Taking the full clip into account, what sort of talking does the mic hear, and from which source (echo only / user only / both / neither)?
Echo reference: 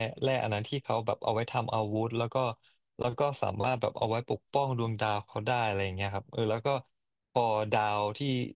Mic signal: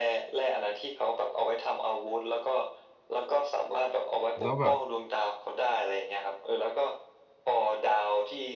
both